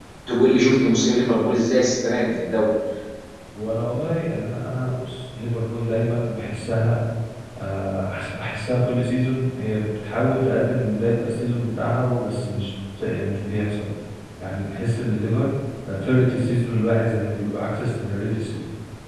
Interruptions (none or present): none